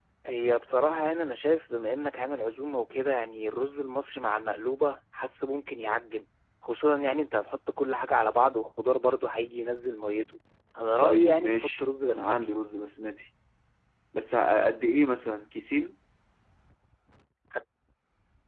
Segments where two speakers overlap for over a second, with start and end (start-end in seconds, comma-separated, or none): 11.0-12.4